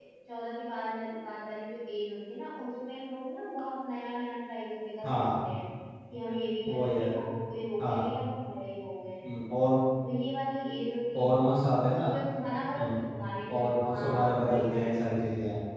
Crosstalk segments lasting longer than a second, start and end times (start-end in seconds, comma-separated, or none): 13.5-14.8